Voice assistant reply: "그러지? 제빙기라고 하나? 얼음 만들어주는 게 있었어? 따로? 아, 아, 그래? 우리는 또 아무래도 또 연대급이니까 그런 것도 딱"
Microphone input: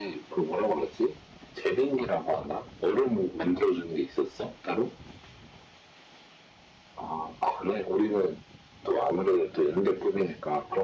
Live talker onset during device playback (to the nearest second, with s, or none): none